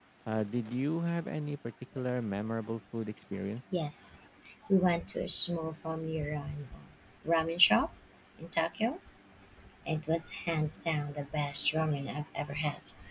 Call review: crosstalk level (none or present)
none